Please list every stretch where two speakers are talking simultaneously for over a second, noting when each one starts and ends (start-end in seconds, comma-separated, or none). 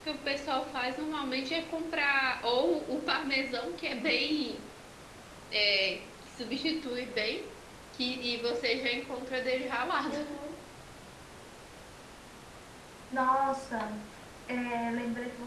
none